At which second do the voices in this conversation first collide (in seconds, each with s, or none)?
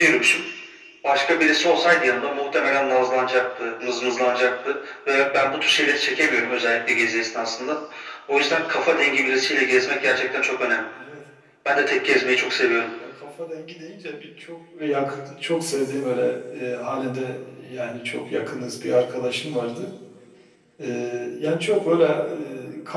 none